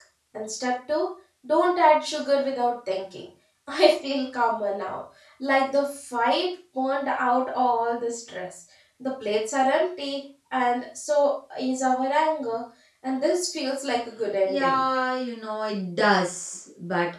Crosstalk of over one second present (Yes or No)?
No